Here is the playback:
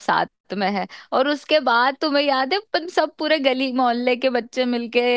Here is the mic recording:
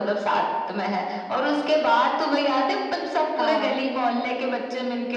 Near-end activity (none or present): present